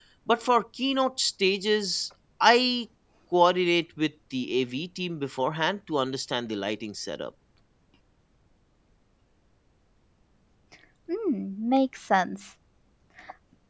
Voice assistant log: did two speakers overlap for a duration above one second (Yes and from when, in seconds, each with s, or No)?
No